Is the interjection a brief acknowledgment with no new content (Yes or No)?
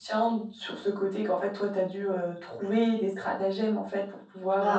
No